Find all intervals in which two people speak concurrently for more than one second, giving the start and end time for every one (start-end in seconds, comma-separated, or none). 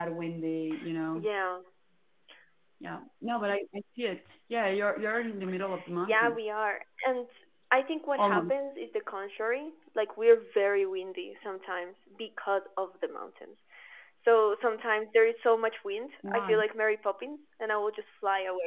none